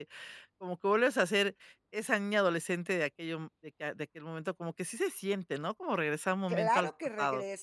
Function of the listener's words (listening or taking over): taking over